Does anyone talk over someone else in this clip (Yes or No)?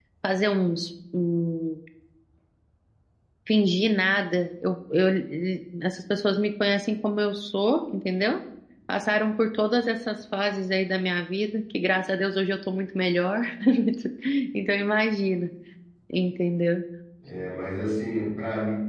No